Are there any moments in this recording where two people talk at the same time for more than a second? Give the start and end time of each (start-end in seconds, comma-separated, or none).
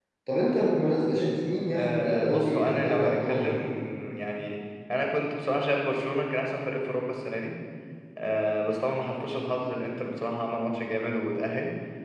1.8-3.5